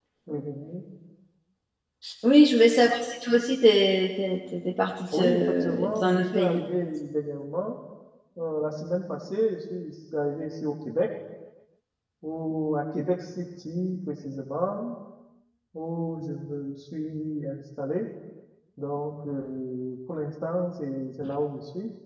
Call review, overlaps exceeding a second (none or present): present